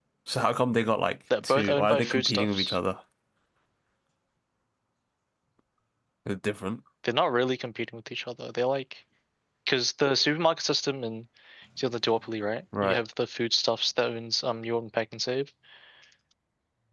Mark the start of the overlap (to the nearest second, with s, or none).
1 s